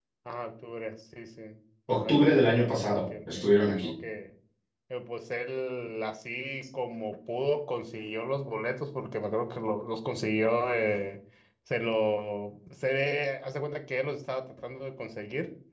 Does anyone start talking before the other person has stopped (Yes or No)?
Yes